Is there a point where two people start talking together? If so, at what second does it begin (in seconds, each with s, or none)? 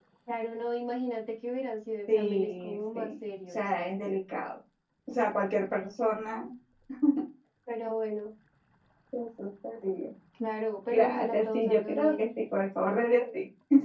2.1 s